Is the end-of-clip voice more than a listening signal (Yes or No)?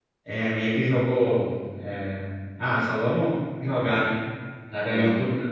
No